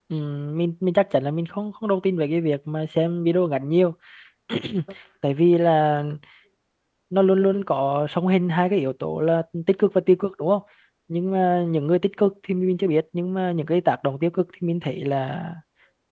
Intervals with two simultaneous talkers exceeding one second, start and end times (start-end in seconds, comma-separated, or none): none